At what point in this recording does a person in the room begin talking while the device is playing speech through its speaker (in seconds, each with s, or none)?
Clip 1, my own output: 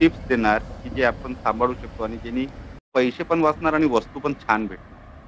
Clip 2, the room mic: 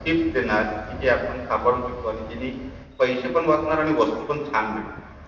none